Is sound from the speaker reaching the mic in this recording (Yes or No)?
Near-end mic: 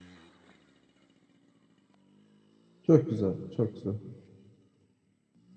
No